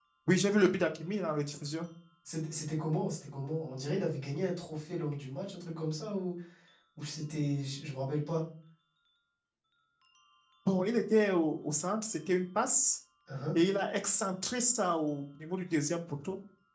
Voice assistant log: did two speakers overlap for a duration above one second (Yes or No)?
No